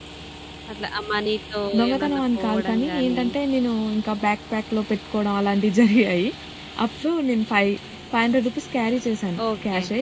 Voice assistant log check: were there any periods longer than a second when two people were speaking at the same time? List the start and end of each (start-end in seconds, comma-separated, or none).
1.8-3.2